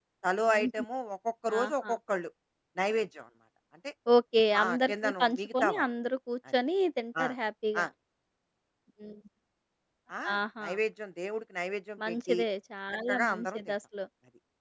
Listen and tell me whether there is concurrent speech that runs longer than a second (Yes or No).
Yes